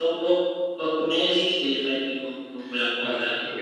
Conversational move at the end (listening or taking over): taking over